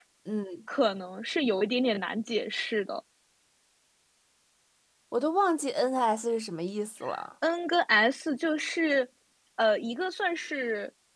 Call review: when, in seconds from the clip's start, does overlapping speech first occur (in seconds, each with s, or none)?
none